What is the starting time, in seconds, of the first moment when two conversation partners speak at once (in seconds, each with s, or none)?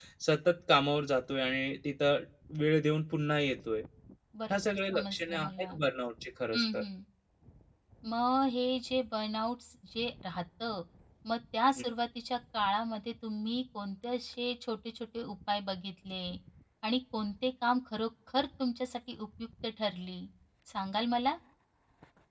4.5 s